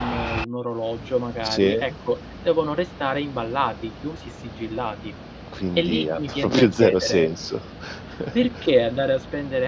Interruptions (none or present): present